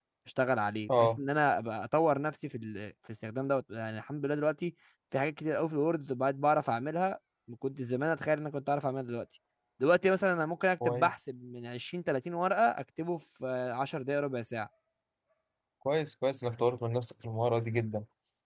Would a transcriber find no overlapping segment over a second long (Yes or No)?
Yes